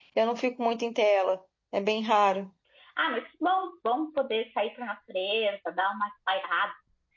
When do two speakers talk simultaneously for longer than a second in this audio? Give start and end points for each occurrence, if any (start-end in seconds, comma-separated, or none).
none